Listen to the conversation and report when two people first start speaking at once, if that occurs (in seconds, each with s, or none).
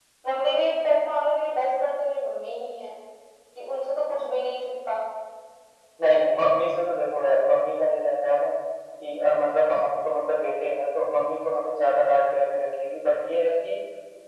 none